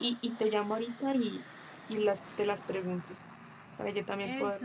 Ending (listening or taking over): taking over